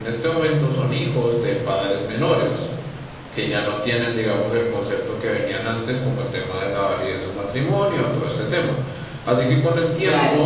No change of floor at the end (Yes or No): Yes